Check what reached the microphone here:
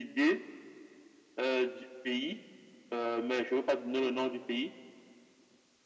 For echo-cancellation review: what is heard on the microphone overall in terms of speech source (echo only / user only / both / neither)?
echo only